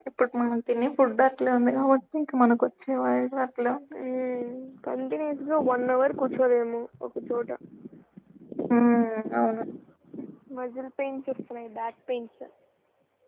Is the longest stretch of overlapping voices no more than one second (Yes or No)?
Yes